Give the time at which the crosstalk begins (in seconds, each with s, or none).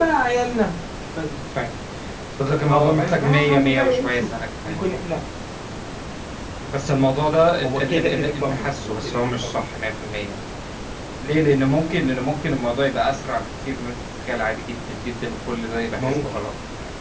2.7 s